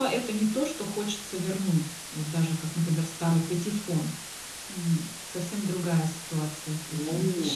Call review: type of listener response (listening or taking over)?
taking over